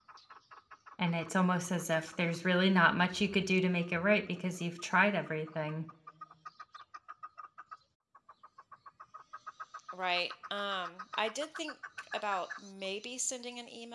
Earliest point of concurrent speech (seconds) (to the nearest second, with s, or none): none